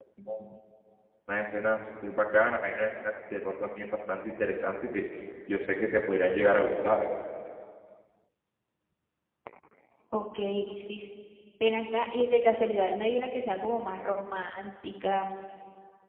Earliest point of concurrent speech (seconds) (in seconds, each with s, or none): none